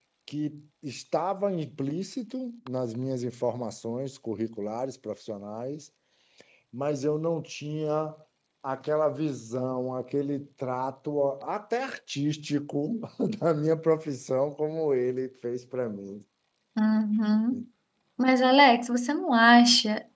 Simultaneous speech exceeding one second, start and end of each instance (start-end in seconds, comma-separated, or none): none